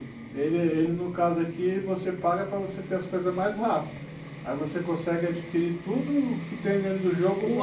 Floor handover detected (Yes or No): Yes